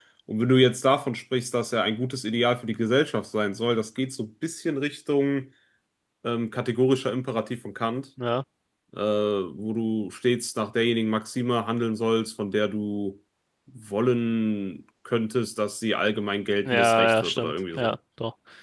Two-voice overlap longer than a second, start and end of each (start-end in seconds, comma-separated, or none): 16.6-17.9